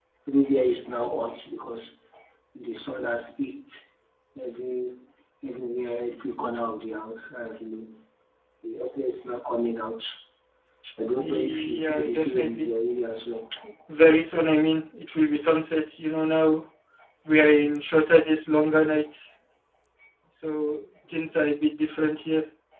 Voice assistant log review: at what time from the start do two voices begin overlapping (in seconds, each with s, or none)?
11.2 s